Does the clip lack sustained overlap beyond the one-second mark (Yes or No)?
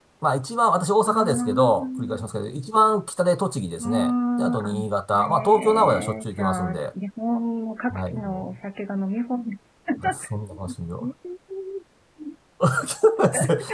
No